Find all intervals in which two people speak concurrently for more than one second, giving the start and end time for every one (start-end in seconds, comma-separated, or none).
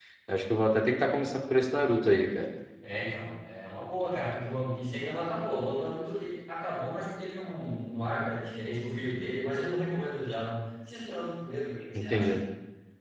none